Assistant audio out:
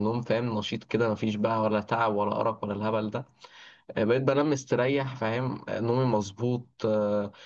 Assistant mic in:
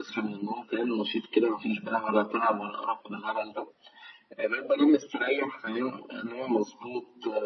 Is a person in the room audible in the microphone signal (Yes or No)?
No